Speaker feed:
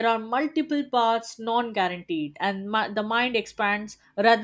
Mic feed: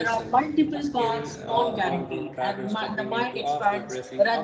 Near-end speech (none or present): present